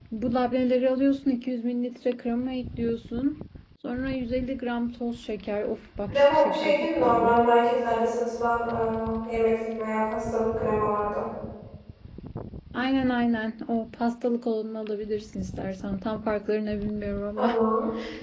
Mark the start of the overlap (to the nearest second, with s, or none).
6 s